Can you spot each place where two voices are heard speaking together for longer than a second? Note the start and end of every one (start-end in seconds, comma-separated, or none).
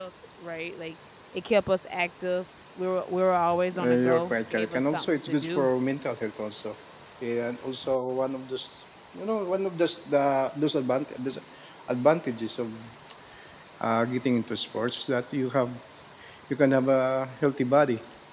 3.8-5.7